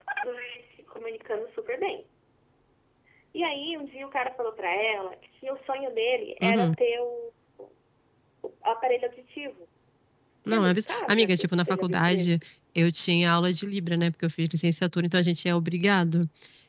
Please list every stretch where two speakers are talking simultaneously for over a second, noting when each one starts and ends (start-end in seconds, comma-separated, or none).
10.5-12.4